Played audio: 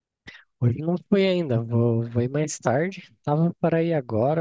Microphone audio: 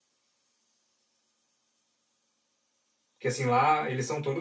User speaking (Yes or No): Yes